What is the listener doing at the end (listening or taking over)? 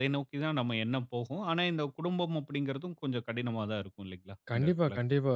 taking over